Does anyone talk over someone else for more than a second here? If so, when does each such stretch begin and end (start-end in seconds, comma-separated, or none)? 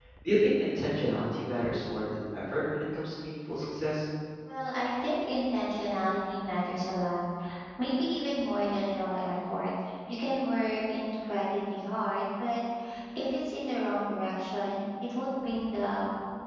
none